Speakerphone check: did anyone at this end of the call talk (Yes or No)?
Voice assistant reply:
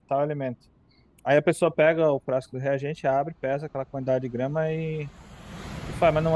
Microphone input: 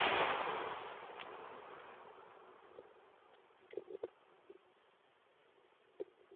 No